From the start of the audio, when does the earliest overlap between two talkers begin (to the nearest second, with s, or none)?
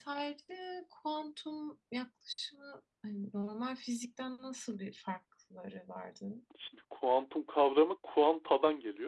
none